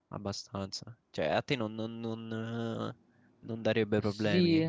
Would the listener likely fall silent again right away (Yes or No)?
No